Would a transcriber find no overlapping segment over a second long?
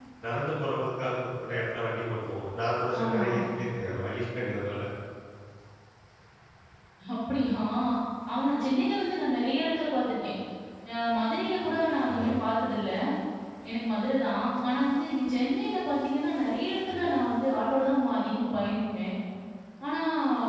Yes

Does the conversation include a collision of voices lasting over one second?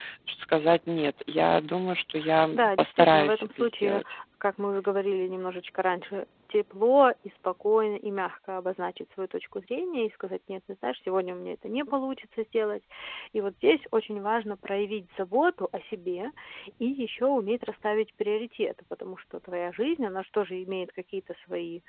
Yes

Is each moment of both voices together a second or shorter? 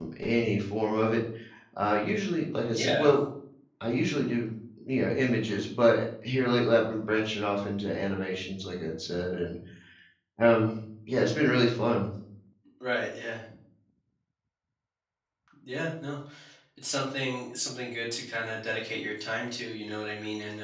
Yes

